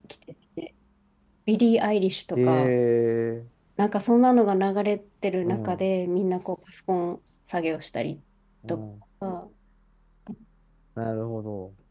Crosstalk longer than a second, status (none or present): none